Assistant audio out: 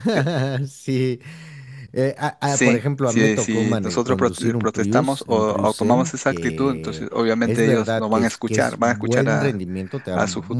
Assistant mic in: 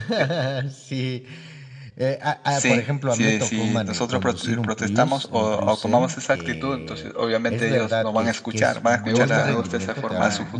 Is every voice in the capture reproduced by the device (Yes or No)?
No